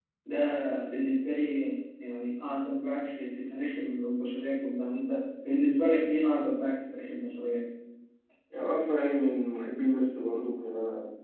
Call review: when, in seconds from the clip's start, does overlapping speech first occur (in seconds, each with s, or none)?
none